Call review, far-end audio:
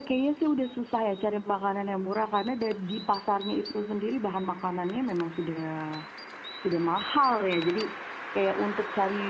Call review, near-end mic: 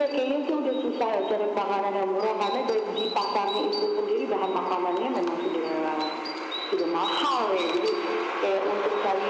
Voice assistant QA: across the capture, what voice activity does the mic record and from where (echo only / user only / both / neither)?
echo only